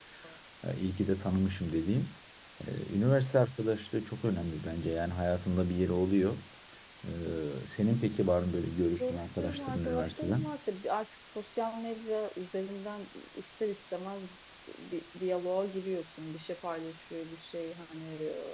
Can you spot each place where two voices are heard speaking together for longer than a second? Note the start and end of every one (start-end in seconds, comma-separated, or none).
9.0-10.4